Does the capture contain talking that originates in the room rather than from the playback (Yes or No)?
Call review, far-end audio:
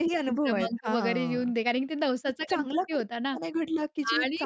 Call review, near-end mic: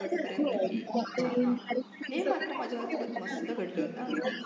Yes